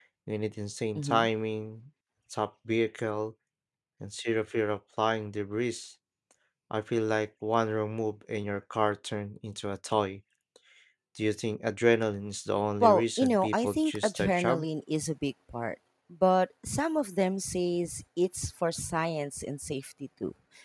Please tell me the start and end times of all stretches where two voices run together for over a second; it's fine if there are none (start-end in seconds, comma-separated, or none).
12.8-14.7